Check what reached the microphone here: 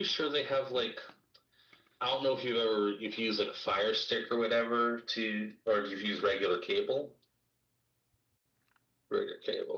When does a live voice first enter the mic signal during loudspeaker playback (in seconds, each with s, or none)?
none